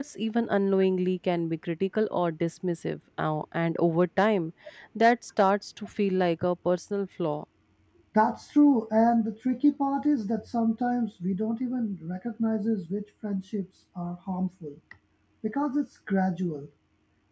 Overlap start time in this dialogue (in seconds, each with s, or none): none